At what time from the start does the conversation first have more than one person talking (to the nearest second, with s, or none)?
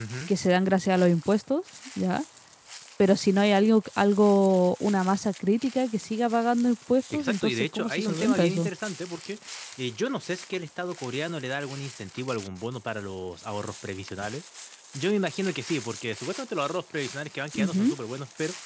7 s